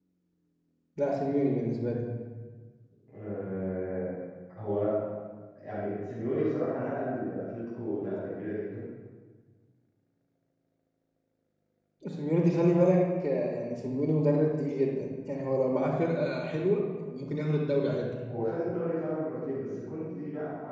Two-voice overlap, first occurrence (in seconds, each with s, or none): none